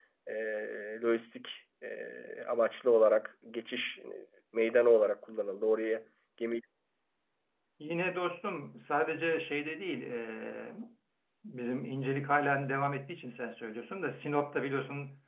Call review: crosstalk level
none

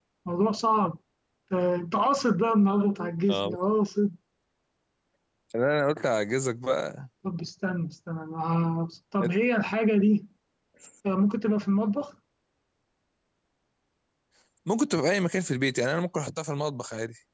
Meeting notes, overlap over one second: none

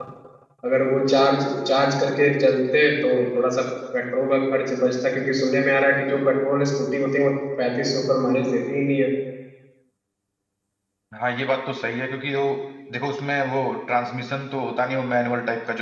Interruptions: none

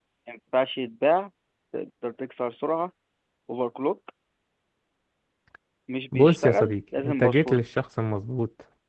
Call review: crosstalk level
present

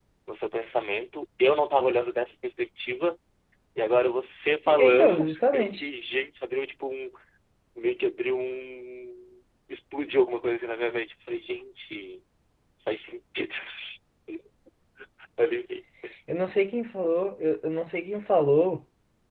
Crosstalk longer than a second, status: present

